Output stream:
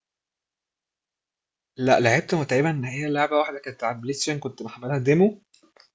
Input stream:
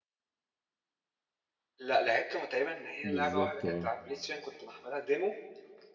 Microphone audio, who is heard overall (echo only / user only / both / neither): both